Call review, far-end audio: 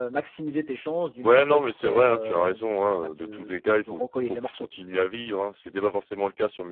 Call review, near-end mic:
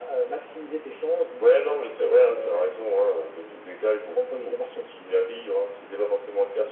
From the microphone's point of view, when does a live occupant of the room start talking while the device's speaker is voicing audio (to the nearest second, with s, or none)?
none